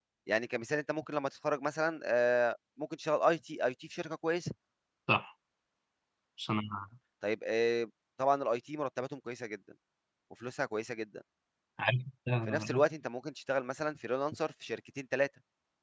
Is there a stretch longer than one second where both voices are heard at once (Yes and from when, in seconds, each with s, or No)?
No